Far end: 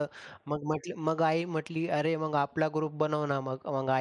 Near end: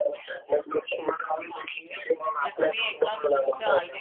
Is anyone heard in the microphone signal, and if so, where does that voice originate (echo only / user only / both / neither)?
both